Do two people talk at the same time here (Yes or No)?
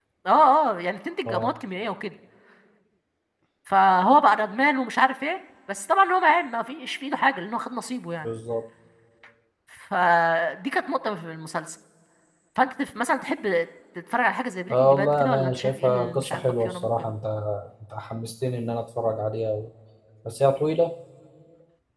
Yes